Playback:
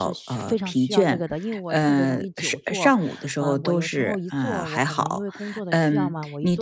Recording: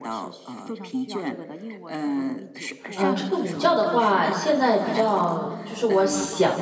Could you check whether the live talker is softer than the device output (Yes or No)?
No